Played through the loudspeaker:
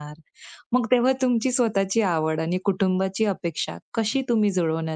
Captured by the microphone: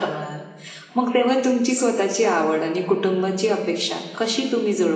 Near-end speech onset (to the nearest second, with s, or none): none